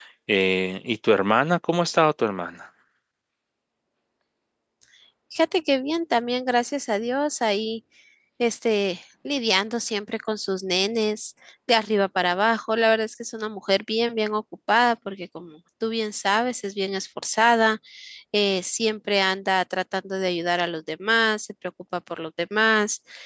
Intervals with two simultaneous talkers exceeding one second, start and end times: none

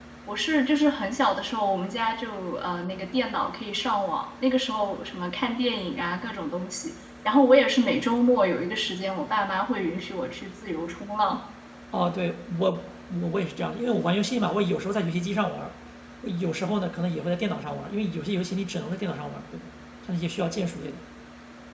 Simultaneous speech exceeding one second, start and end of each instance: none

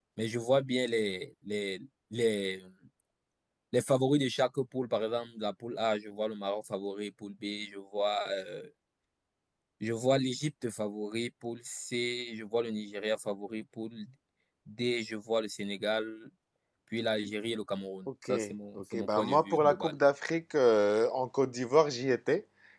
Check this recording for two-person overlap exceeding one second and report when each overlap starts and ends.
18.8-20.0

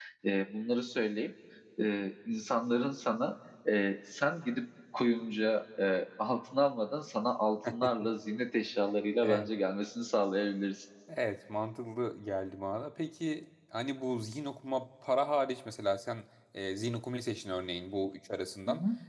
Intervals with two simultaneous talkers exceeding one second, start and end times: none

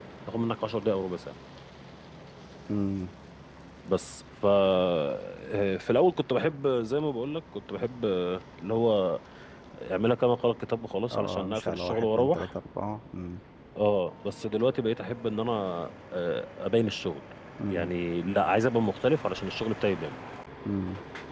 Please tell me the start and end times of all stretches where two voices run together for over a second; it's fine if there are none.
11.1-12.5

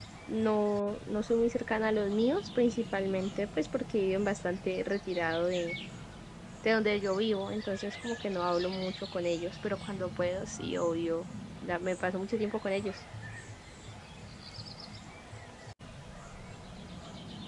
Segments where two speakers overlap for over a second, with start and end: none

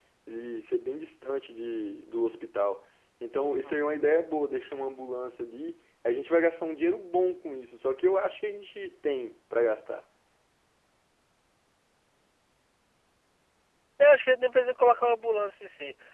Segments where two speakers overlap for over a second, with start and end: none

